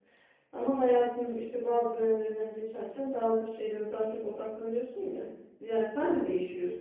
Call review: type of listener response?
listening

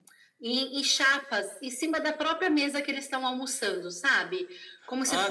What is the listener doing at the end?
taking over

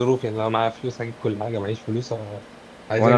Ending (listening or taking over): taking over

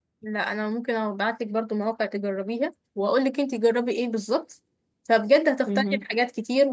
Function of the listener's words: listening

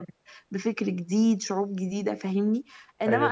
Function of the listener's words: listening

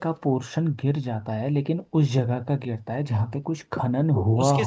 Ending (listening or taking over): taking over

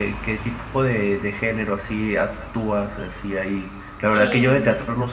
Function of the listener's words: listening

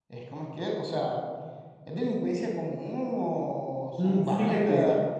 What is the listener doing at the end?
taking over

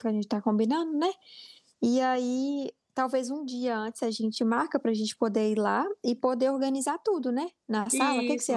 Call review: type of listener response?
taking over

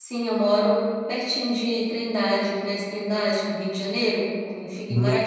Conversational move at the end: taking over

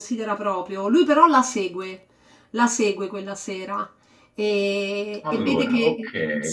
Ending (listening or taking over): listening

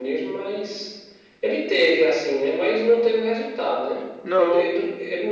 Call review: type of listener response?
listening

